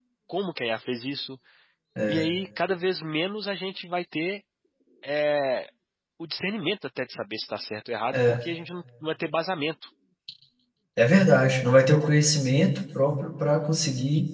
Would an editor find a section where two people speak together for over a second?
No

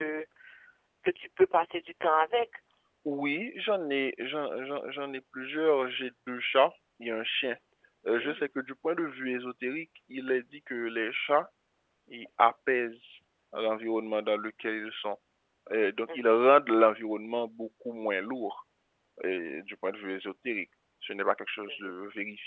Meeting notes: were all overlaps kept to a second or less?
Yes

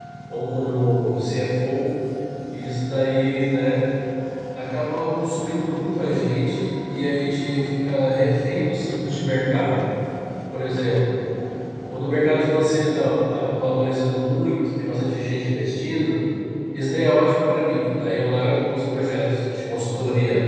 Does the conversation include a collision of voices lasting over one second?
No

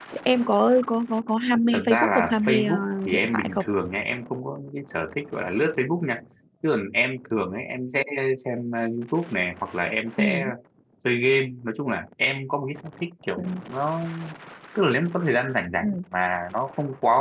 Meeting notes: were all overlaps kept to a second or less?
No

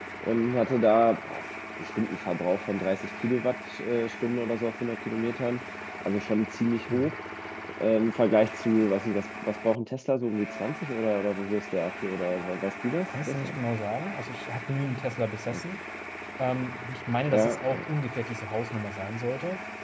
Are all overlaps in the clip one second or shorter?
Yes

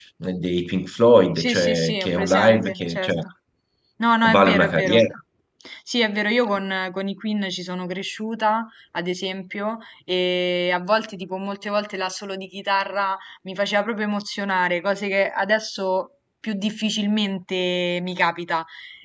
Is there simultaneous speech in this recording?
Yes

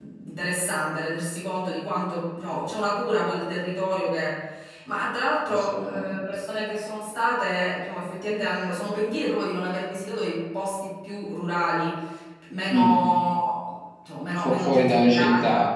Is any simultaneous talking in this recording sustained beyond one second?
Yes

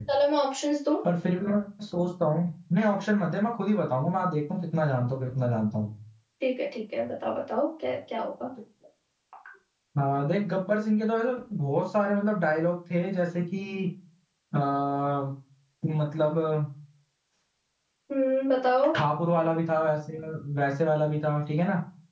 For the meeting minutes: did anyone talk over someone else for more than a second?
No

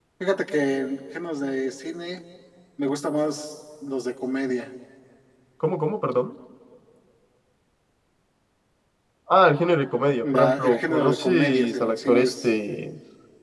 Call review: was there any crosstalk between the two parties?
Yes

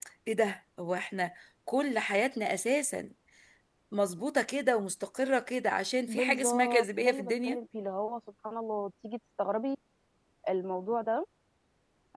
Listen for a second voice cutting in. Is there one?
Yes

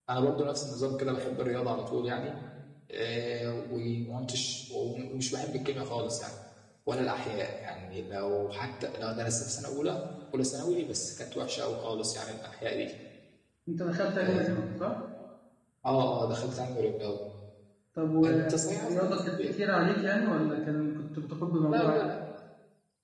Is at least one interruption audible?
Yes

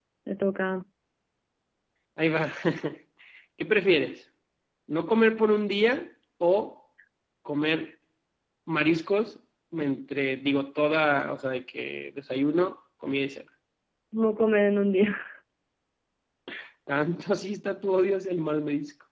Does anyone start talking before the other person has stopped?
No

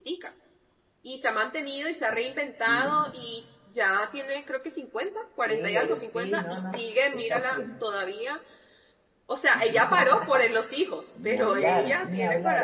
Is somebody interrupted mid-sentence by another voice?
Yes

